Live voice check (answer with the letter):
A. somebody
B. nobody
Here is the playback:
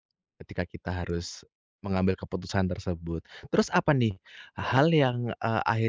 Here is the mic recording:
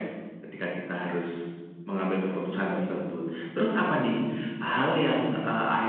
B